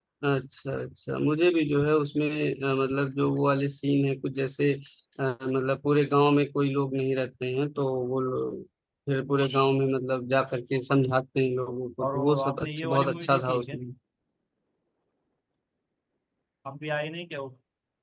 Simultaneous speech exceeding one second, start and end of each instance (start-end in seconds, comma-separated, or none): 12.0-13.8